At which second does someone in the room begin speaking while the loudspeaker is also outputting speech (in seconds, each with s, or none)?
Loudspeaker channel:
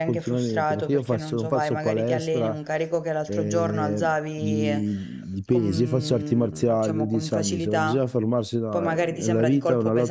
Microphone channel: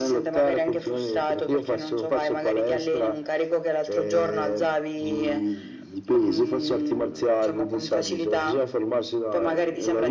none